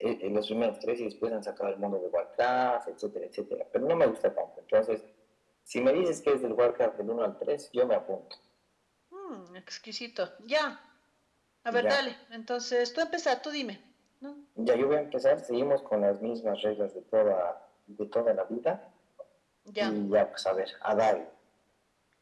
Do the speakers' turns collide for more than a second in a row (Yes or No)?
No